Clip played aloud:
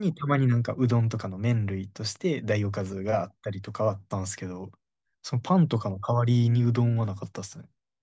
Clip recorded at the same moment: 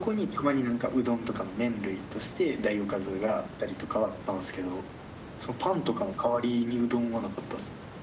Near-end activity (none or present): none